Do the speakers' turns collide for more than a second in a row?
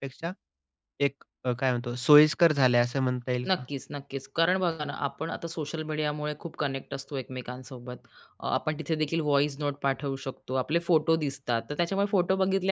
No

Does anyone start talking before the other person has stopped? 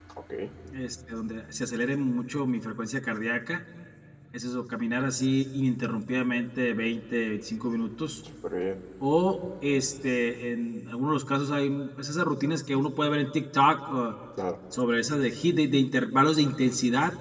No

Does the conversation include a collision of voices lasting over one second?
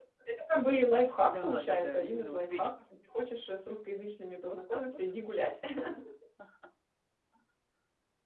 Yes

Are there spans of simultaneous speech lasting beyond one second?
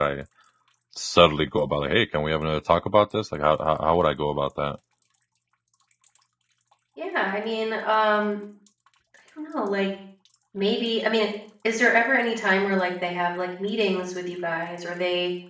No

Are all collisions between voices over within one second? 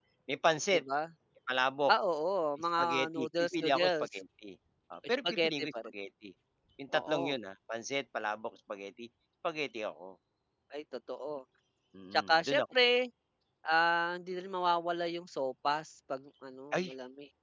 No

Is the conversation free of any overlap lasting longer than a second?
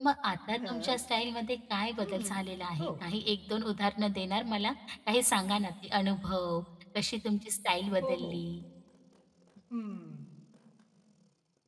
Yes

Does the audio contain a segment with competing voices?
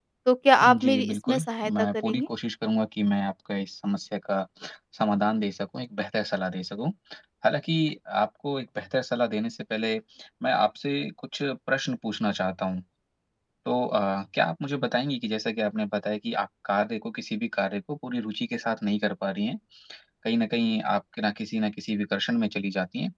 Yes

